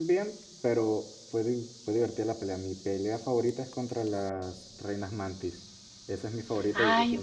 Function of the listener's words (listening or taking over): taking over